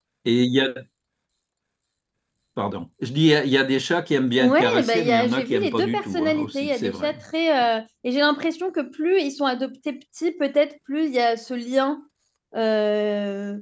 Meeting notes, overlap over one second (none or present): present